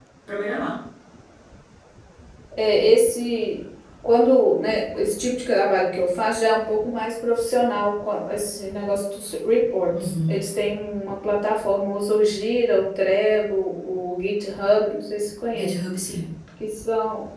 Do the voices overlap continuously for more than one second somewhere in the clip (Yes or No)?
No